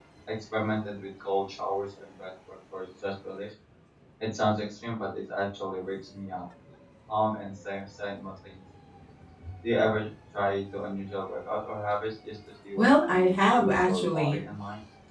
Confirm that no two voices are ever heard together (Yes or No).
No